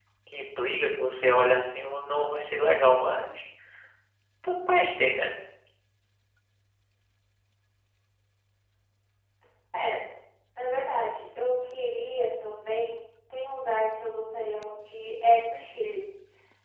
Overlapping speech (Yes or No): No